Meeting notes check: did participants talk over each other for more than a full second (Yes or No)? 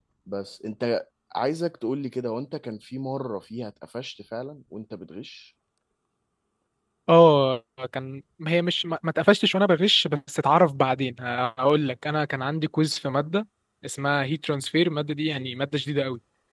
No